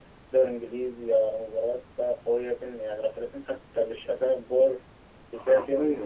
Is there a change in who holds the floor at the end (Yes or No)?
Yes